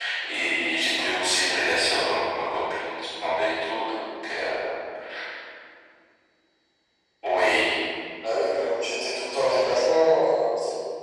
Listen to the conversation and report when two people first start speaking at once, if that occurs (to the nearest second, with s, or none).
none